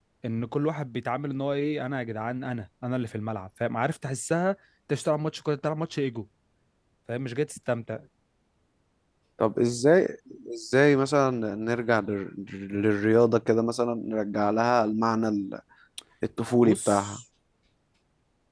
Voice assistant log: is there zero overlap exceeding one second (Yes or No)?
Yes